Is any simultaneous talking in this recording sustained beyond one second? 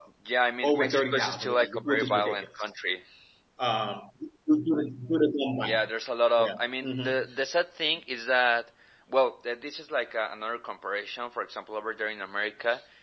Yes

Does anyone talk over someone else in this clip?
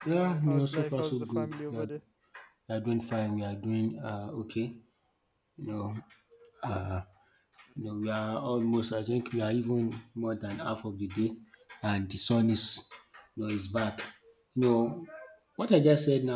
Yes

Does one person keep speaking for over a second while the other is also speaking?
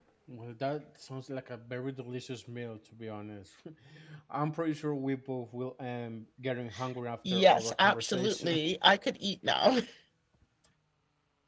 Yes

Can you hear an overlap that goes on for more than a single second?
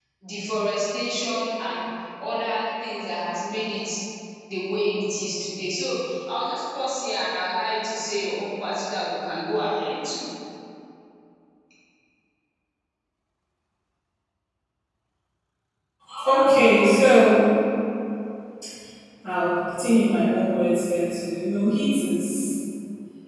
No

